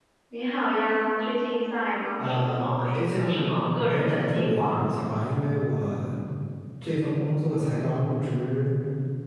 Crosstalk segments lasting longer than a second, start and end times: 2.2-4.8

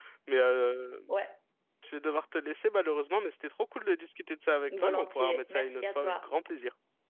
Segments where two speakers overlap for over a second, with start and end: 4.8-6.2

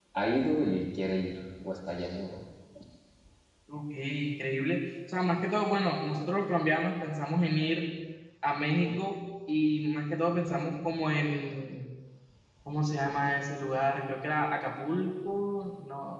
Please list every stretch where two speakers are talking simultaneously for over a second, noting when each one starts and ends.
none

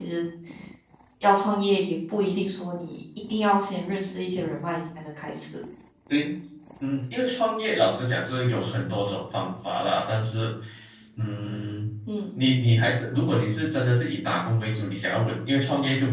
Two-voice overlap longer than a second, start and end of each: none

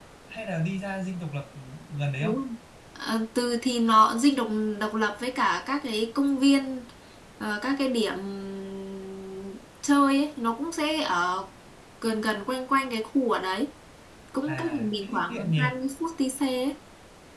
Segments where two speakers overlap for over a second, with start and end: 14.5-15.7

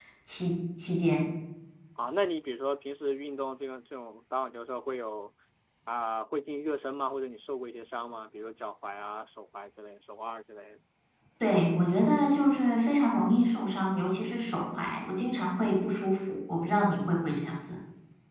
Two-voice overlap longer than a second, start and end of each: none

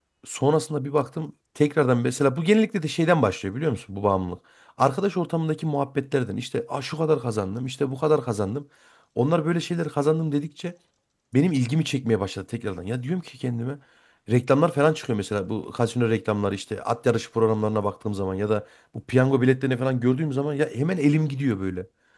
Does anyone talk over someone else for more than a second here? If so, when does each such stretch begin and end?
none

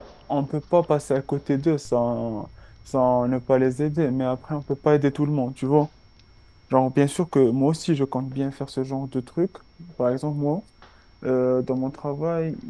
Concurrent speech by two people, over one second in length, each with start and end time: none

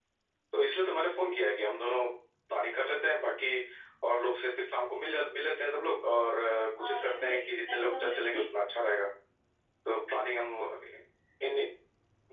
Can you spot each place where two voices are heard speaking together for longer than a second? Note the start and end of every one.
6.8-8.4

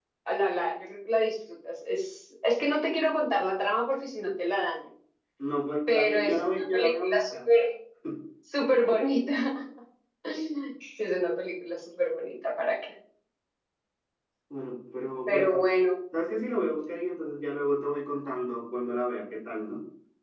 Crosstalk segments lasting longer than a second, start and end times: 5.9-7.3

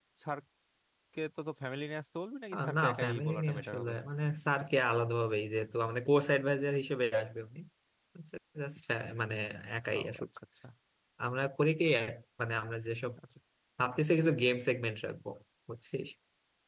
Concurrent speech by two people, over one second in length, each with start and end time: 2.5-3.9

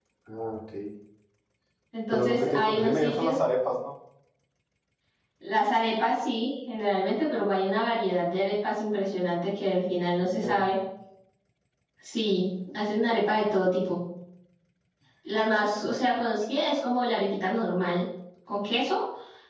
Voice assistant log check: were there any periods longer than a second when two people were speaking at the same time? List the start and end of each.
2.1-3.4

